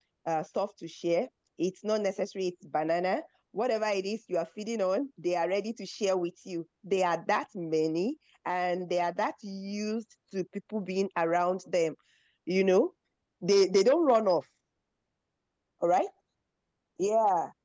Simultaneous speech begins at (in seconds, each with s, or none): none